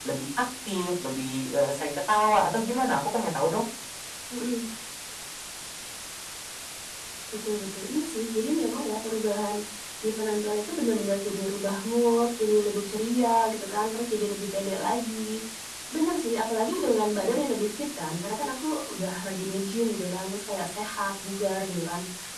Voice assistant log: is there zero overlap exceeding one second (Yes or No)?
Yes